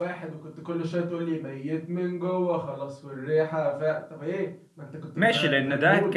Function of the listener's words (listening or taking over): taking over